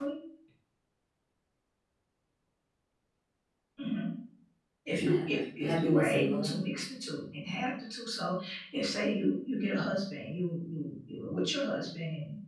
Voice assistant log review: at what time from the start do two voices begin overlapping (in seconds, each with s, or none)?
5.0 s